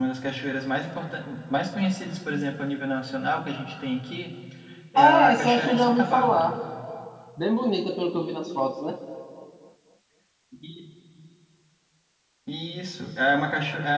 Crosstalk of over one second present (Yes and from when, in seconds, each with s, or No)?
Yes, from 5.0 s